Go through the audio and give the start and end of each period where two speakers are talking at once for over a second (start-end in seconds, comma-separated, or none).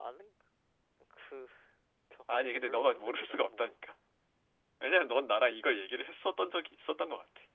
2.3-3.7